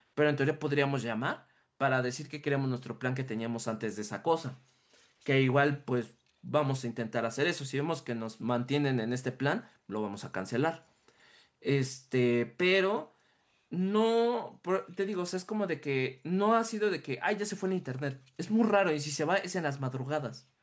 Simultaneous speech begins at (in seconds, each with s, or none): none